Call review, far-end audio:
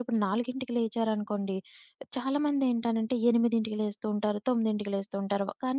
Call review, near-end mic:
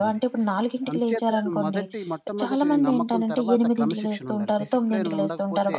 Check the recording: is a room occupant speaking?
Yes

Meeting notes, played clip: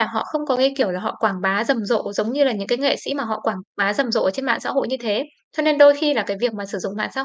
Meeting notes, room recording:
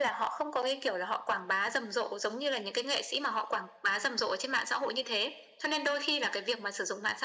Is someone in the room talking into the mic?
No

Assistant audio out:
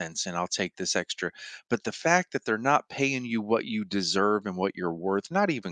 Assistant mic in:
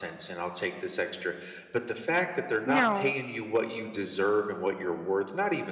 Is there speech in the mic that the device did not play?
Yes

